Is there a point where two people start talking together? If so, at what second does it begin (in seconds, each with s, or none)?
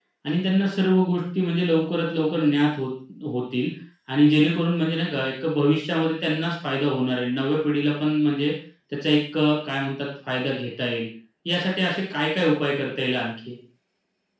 none